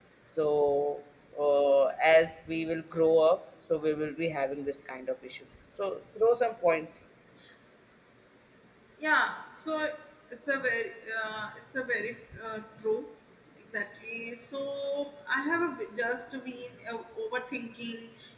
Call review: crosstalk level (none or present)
none